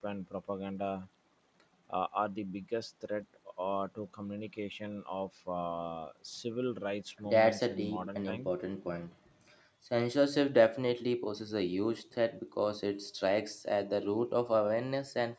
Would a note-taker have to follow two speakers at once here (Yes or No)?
Yes